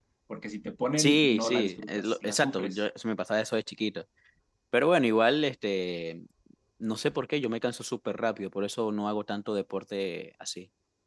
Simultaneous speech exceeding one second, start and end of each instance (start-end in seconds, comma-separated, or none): 1.0-2.8